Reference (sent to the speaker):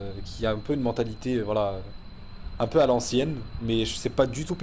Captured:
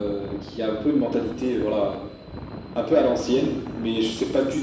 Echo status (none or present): present